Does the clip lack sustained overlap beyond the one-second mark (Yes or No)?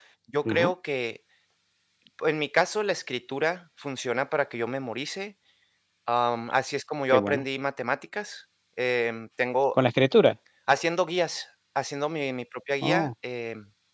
Yes